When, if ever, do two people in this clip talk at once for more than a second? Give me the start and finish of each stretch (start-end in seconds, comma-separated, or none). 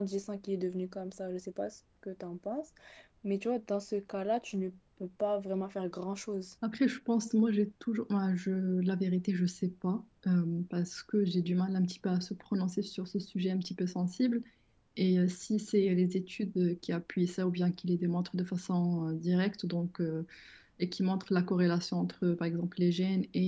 none